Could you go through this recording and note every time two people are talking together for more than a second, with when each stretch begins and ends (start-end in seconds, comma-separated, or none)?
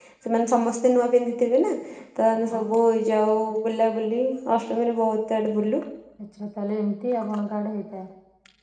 none